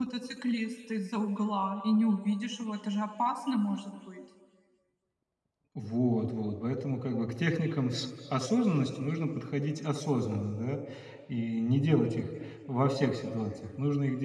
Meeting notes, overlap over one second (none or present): none